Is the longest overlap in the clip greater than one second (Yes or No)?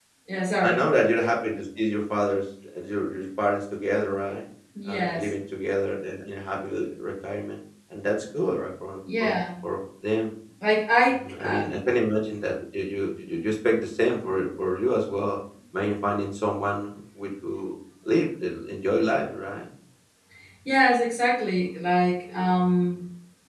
No